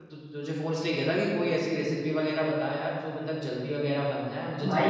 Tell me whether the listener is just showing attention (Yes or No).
No